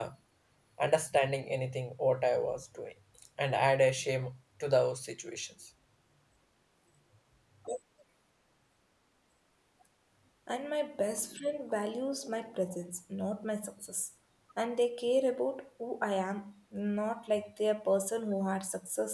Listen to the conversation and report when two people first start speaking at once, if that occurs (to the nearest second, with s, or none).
none